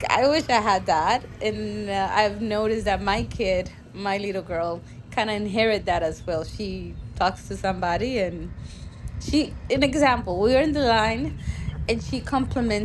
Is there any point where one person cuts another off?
No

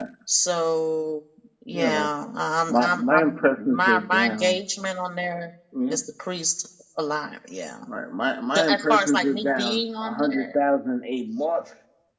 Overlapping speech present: Yes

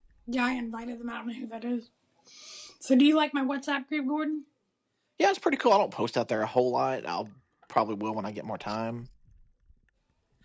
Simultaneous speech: No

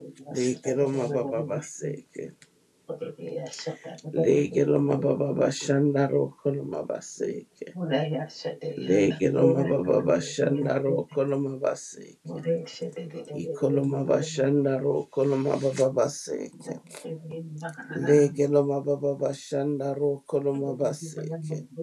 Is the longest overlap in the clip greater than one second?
Yes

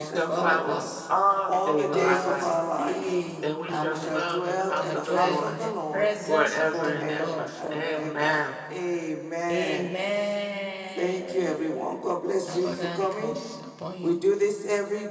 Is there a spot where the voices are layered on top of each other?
Yes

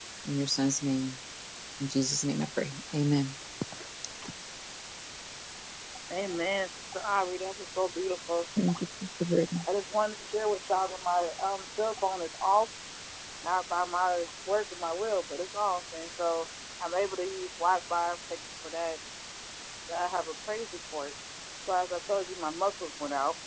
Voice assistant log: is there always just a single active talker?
Yes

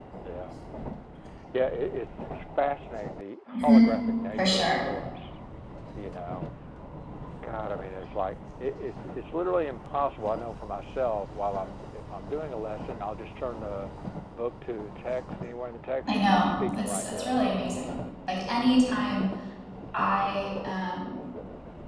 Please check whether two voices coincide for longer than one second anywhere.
Yes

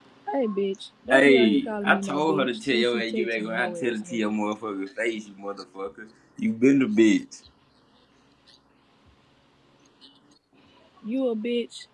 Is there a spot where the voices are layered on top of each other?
Yes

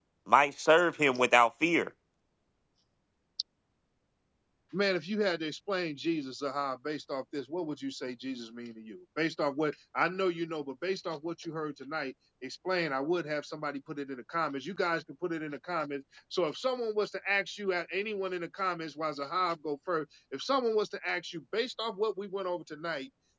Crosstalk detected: No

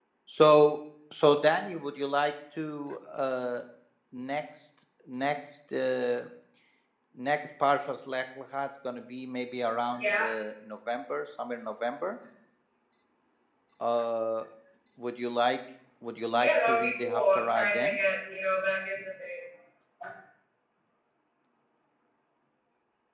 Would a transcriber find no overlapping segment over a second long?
No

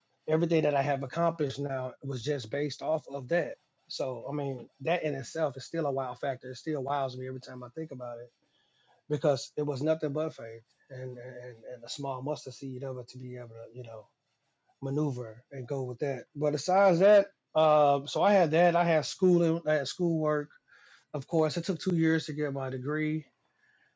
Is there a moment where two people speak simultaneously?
No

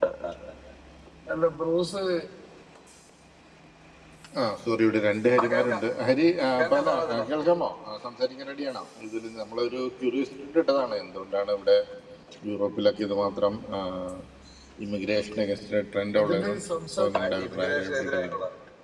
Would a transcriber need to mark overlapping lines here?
Yes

